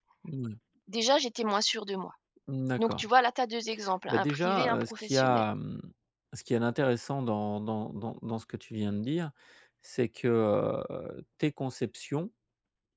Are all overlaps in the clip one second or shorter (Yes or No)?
No